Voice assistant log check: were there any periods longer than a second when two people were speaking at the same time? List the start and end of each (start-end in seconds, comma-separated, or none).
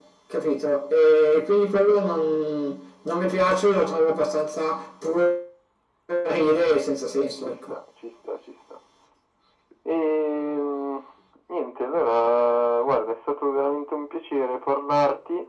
none